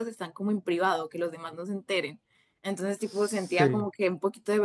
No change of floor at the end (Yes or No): Yes